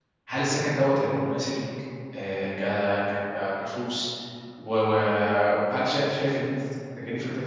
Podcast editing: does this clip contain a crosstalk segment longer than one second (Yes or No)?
No